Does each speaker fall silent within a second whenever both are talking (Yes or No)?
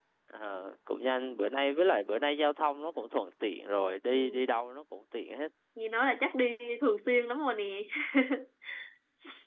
Yes